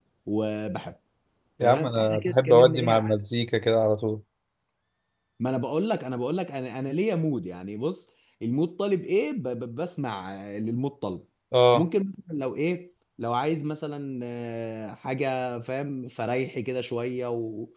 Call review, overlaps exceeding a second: present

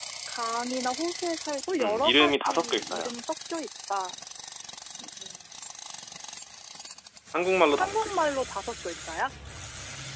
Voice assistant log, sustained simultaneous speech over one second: present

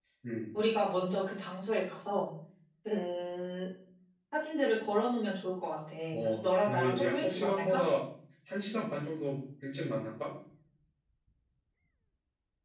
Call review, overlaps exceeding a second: present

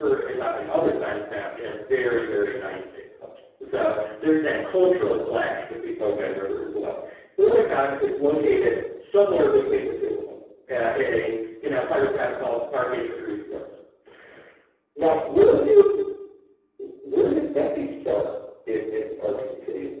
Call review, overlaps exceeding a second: none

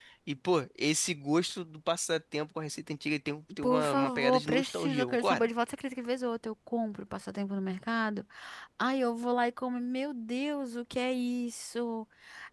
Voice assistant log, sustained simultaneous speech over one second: present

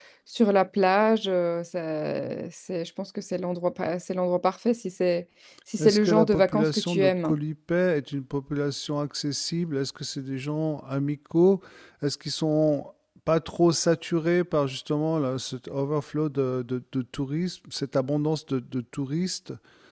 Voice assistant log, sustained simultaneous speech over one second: present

